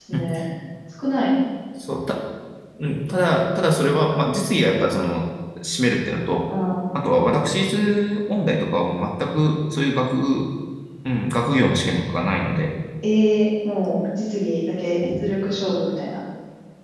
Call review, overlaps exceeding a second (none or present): none